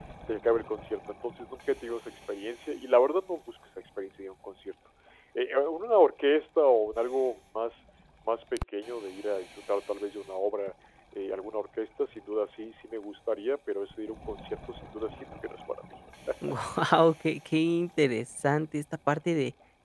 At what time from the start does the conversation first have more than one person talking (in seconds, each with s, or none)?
none